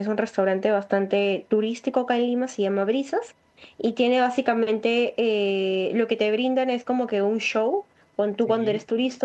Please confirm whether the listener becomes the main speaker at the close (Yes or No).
No